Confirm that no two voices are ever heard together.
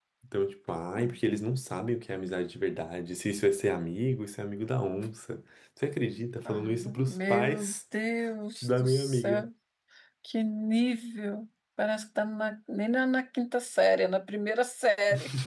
No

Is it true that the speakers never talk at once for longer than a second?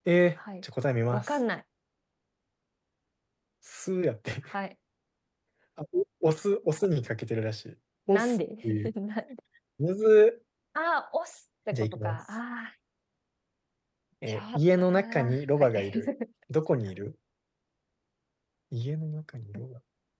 No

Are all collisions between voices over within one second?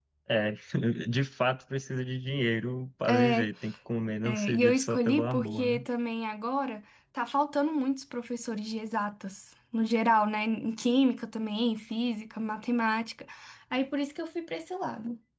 No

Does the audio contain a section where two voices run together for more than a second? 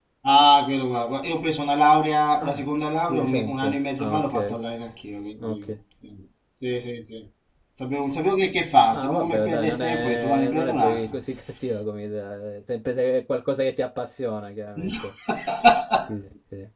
Yes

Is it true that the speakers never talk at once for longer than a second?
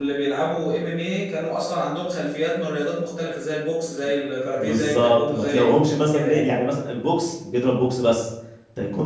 No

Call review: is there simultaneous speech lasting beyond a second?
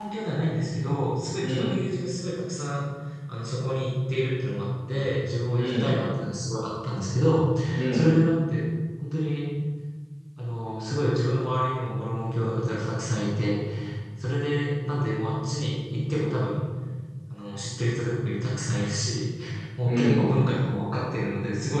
No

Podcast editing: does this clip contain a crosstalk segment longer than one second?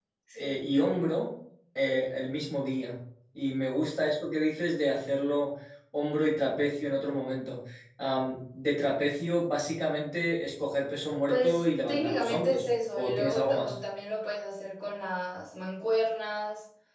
Yes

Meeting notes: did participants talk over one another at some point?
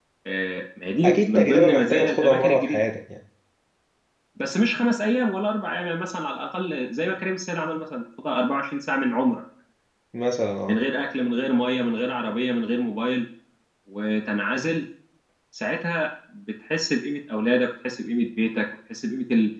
Yes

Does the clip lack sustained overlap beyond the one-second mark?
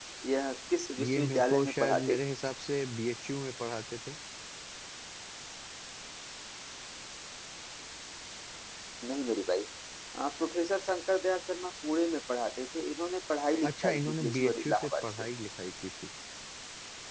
No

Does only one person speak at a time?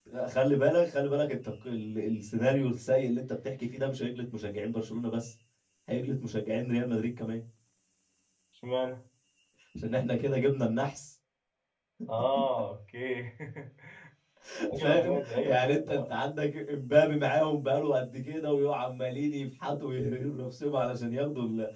No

